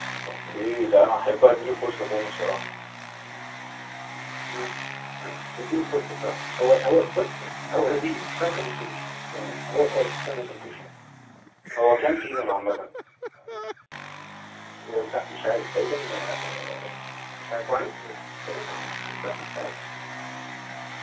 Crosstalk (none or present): none